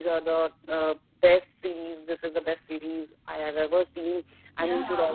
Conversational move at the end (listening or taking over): listening